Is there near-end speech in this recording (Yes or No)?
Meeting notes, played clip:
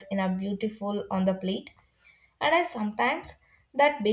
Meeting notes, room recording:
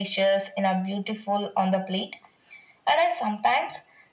No